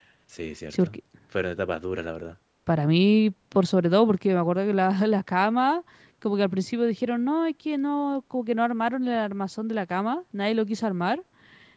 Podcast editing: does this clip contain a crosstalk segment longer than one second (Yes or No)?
No